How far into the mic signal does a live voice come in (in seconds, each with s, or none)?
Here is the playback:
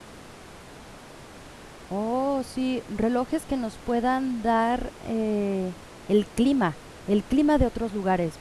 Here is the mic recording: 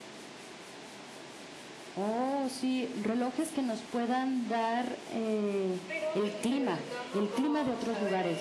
5.8 s